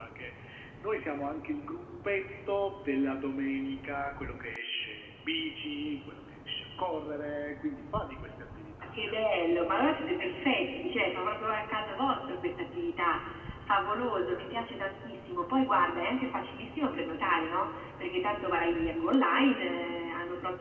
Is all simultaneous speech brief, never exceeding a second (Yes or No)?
Yes